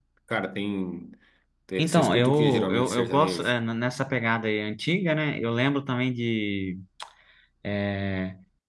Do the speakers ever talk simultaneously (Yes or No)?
Yes